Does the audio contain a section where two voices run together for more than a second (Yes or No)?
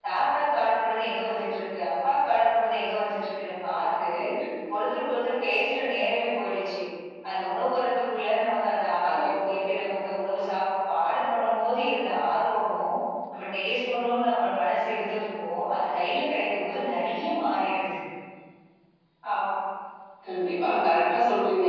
No